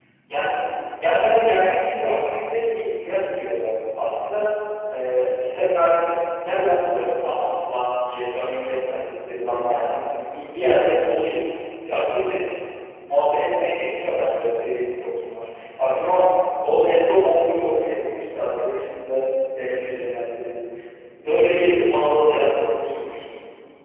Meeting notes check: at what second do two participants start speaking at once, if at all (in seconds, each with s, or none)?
none